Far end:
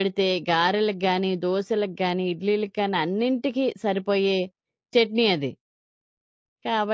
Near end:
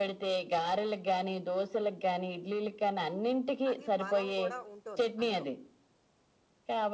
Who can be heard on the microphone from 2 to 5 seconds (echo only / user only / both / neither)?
both